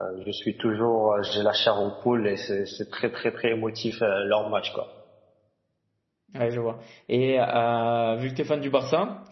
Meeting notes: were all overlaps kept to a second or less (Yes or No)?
Yes